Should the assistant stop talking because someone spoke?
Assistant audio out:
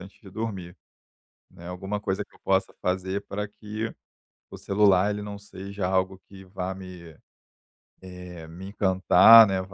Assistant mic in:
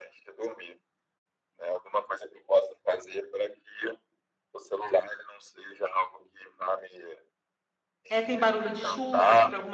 Yes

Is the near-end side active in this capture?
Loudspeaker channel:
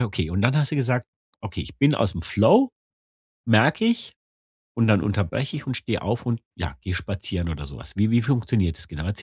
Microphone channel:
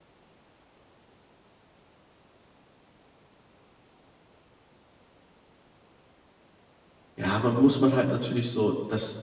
Yes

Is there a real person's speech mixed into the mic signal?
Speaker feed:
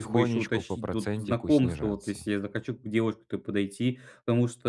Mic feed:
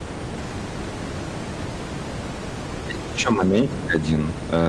Yes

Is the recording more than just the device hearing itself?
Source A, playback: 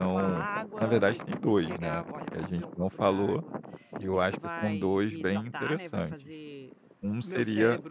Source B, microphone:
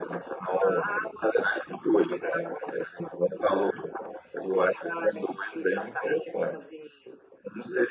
No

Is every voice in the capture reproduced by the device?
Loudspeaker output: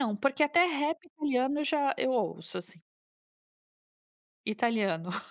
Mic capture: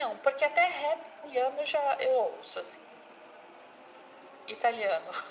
Yes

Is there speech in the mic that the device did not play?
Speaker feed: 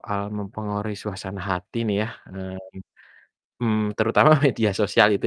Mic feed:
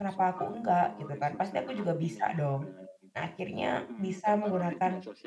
Yes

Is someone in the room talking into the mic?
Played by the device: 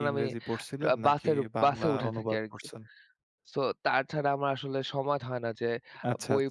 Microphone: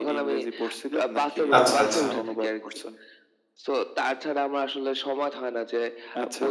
Yes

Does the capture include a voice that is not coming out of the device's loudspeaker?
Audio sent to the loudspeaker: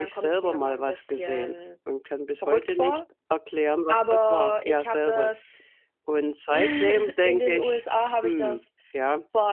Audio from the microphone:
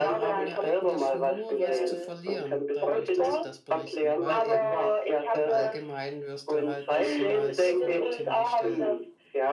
Yes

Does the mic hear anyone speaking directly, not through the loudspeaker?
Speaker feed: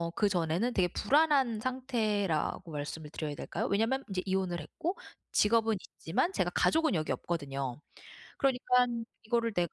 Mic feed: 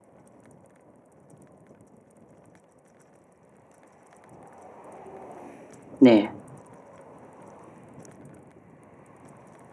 Yes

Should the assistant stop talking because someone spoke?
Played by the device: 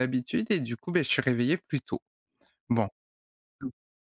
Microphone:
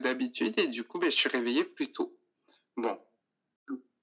No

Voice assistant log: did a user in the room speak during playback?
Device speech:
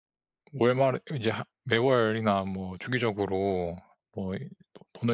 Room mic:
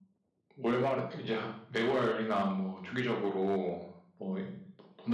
No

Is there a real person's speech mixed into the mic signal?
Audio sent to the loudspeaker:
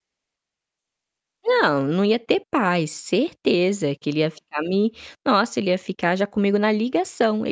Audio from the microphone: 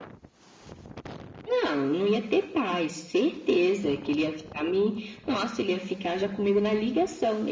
No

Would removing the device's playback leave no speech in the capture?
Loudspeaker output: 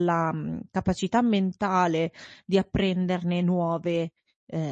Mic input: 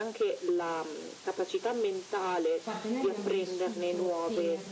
No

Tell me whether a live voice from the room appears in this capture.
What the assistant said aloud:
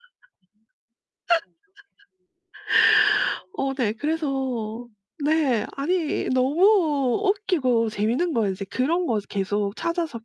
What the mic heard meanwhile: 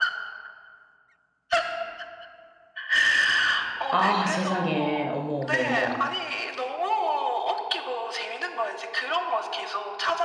Yes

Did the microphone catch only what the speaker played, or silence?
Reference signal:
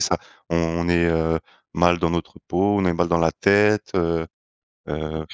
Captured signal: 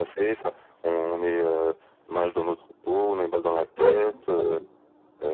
No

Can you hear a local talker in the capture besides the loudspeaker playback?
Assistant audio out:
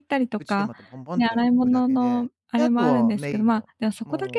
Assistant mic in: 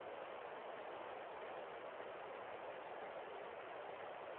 No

